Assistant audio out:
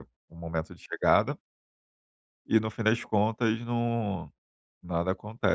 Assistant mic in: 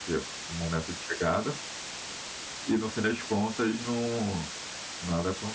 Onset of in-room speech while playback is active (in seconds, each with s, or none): none